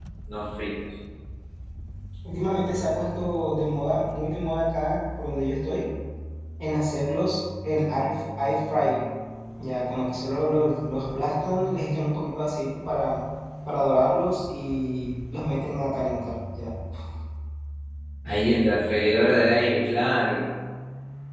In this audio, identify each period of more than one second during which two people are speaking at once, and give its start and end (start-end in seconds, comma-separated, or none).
none